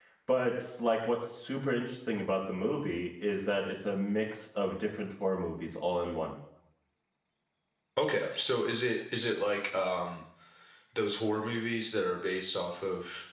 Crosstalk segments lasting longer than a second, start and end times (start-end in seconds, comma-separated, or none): none